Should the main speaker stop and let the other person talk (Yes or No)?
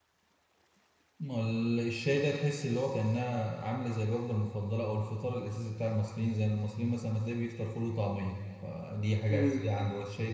No